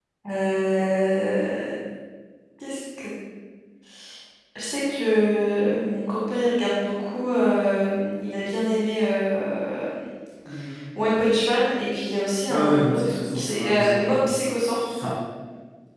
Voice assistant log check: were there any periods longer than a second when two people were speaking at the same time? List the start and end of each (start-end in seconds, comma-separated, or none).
12.5-14.2